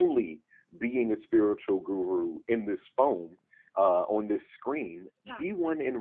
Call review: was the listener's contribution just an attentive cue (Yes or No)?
Yes